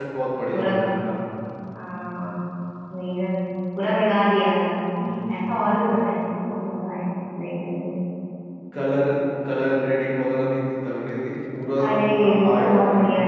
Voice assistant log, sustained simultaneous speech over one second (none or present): present